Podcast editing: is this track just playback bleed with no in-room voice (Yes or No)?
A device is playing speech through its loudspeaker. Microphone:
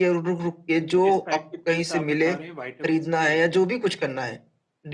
No